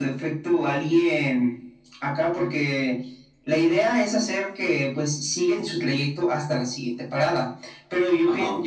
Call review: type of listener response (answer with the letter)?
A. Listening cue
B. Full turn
A